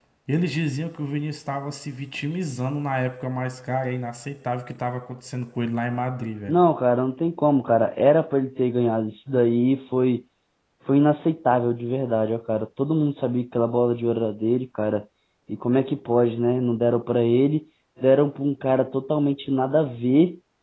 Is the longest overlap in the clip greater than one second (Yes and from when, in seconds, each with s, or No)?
No